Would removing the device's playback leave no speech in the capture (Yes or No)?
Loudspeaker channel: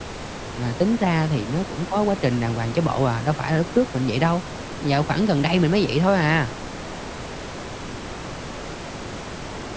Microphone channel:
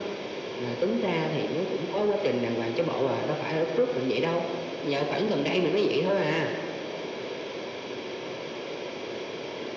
Yes